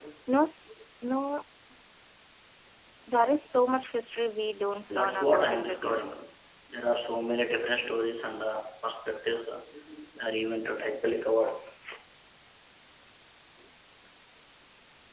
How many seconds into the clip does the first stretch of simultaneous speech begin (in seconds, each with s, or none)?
4.9 s